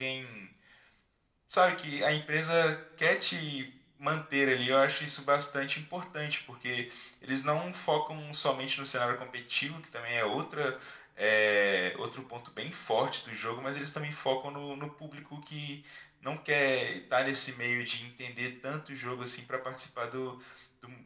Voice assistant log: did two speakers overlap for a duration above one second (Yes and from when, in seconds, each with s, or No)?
No